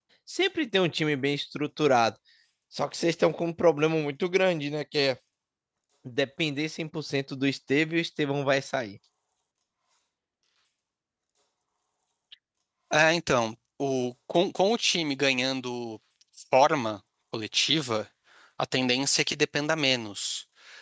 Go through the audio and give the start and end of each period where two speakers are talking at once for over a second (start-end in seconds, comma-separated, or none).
none